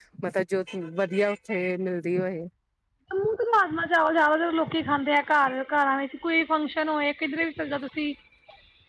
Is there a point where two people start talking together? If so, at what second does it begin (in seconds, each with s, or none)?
none